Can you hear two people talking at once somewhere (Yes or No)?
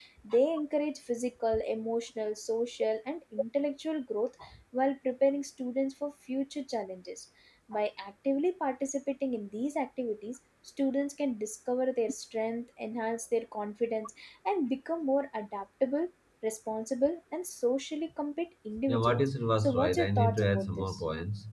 Yes